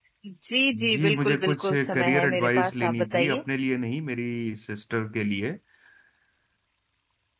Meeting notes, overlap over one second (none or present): present